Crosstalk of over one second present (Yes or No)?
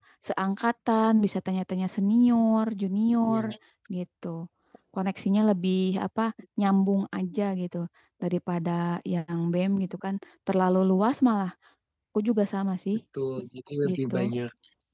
No